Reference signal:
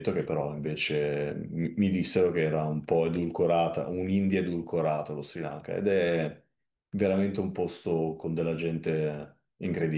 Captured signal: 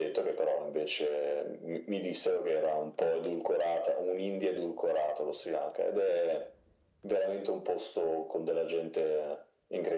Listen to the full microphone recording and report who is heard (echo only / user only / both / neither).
echo only